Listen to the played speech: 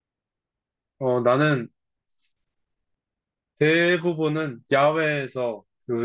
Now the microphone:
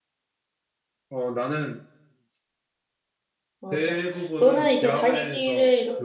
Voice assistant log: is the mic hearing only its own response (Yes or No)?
No